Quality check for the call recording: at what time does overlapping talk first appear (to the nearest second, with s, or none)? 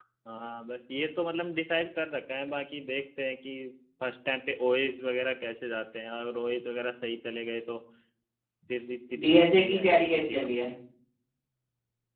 9 s